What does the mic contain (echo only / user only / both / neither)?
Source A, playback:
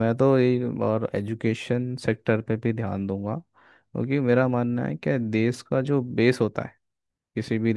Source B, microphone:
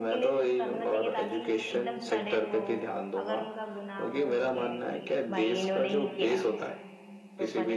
both